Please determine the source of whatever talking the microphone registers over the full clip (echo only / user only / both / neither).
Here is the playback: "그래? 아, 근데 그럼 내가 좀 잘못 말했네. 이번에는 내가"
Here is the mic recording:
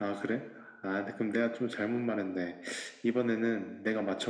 echo only